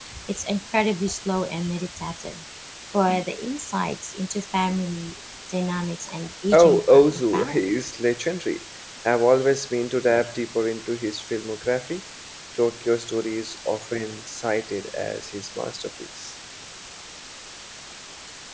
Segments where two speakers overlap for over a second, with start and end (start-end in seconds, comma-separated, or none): 6.5-7.7